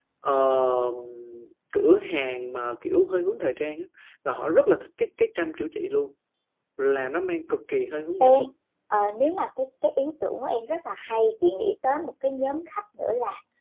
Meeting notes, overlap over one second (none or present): none